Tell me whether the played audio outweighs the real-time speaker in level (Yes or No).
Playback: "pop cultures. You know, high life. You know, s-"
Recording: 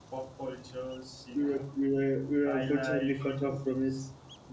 No